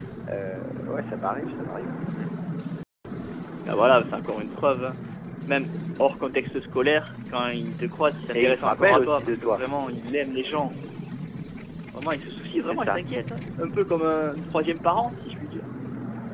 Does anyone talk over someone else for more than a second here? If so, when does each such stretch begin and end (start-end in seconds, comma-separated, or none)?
8.3-9.6